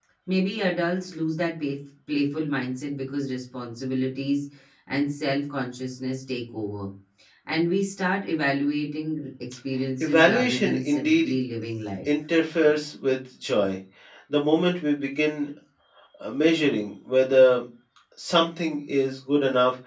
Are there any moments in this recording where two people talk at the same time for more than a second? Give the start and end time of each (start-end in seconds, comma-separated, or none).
10.0-11.3